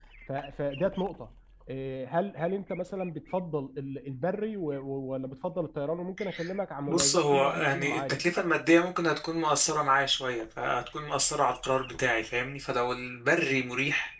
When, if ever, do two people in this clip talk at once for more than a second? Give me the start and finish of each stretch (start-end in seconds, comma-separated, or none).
6.9-8.2